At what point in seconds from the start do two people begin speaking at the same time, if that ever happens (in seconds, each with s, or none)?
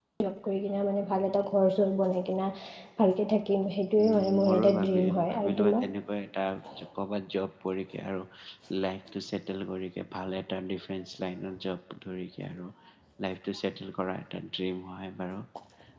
4.0 s